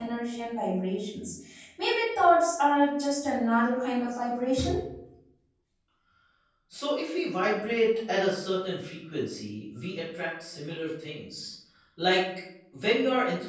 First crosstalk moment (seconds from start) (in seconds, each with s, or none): none